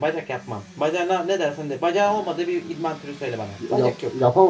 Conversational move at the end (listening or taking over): taking over